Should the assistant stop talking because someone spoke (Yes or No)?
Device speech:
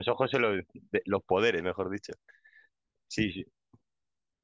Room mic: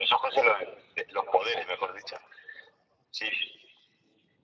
No